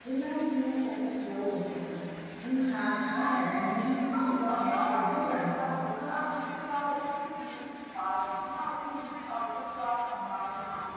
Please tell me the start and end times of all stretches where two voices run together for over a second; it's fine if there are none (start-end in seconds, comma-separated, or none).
4.1-5.7